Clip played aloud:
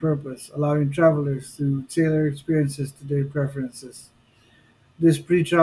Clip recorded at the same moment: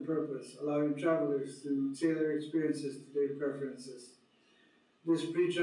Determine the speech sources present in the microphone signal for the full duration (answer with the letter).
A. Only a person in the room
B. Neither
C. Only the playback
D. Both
C